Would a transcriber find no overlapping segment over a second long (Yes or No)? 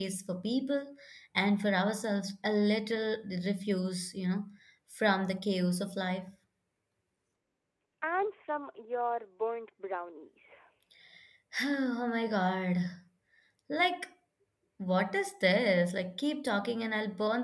Yes